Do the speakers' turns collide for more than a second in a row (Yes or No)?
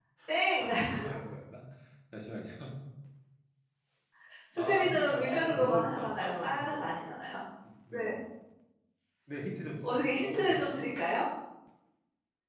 Yes